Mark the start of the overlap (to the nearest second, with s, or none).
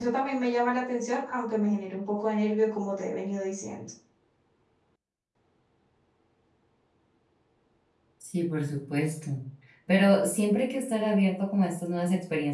none